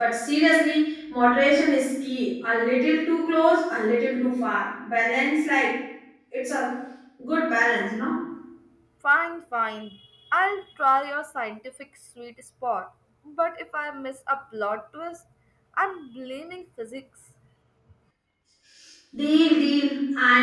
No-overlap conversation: Yes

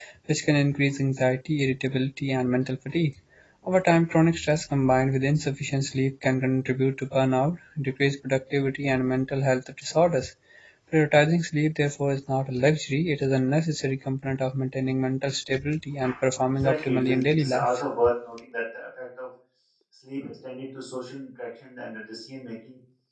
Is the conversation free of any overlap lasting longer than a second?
No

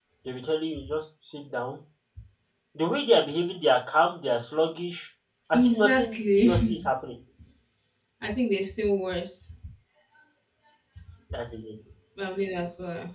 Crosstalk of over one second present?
Yes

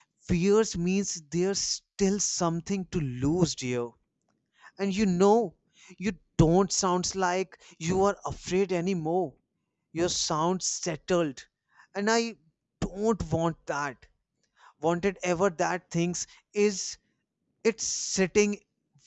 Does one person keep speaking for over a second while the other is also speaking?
No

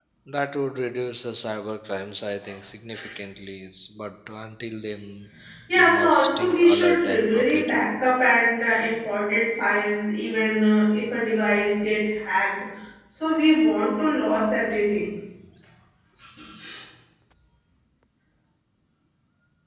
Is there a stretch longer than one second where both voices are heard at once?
Yes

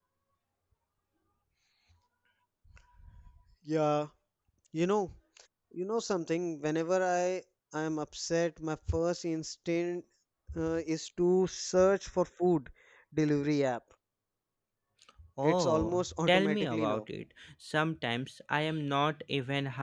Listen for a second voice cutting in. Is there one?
Yes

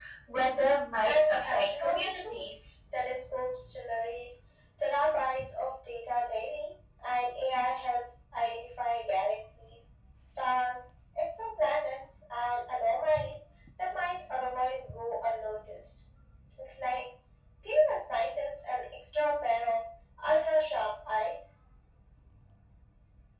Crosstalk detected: Yes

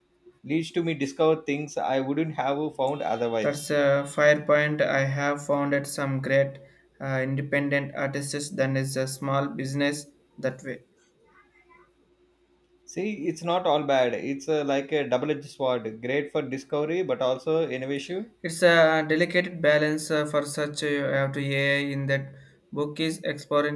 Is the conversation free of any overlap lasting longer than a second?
Yes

